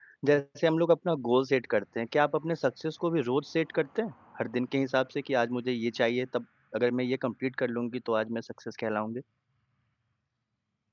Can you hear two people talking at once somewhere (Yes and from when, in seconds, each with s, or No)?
No